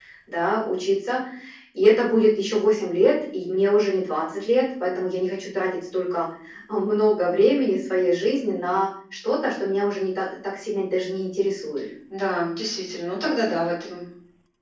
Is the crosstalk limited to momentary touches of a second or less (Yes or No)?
Yes